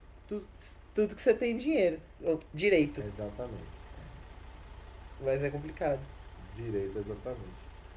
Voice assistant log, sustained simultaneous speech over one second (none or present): none